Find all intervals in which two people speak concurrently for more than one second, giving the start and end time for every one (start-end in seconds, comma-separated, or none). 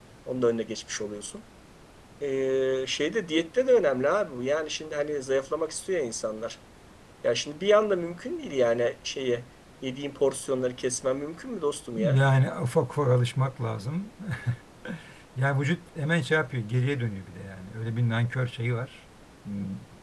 none